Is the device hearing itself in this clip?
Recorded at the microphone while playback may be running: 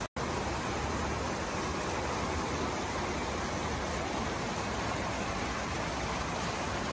No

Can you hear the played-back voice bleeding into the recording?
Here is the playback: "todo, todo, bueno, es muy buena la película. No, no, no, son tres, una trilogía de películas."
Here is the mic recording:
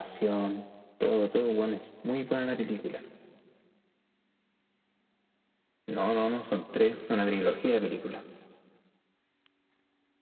Yes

